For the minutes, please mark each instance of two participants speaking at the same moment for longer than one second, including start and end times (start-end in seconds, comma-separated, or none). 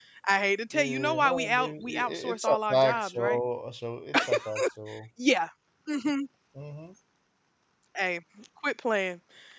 0.7-3.4